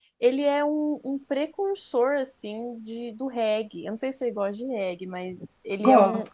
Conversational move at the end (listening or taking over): listening